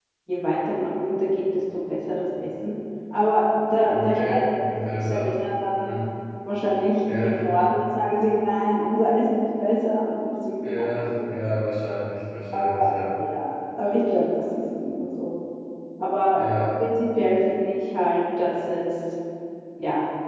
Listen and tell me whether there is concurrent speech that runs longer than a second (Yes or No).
Yes